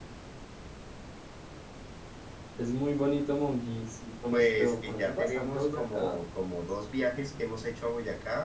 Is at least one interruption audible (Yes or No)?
Yes